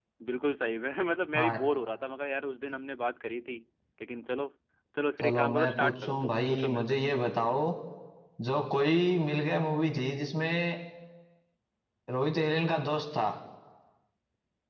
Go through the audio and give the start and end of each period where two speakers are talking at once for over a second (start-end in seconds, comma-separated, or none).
5.2-7.0